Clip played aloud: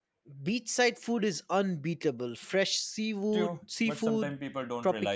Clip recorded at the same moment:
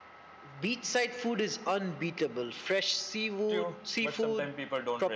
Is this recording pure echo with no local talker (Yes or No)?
Yes